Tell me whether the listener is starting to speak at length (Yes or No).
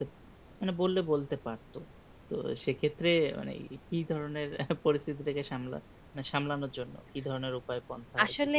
Yes